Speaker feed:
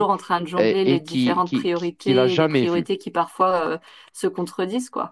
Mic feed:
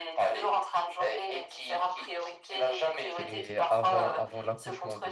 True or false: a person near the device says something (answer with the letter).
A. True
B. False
A